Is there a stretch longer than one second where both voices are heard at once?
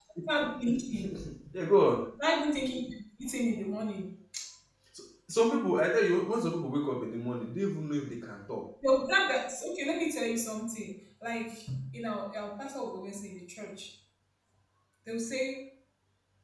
No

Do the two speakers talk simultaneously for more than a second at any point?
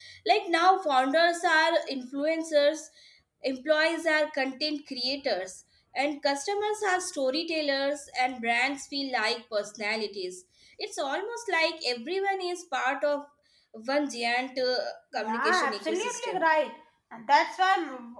Yes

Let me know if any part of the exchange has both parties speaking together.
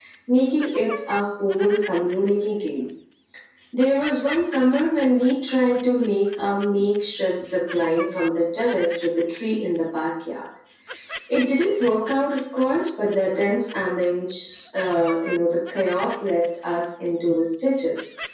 No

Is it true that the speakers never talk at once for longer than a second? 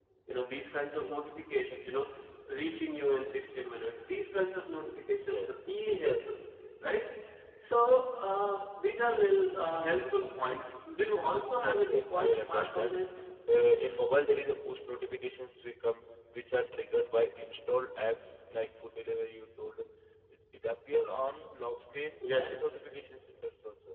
No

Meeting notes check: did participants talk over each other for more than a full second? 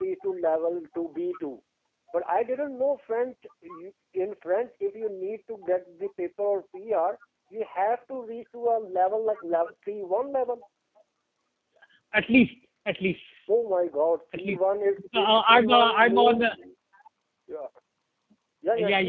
Yes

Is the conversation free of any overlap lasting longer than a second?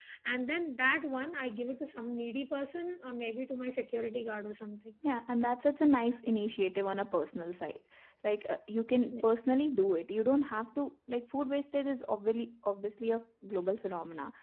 Yes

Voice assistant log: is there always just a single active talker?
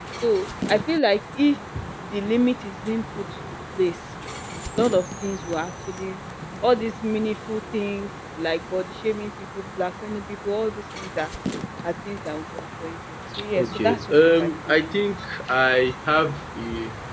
No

